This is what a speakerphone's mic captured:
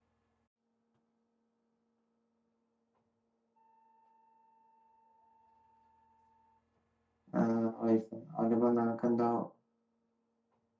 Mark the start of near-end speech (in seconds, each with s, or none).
7.4 s